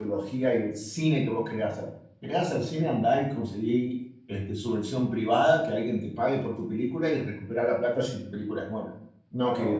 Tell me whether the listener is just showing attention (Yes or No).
No